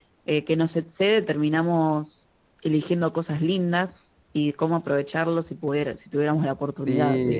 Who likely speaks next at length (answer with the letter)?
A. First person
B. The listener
B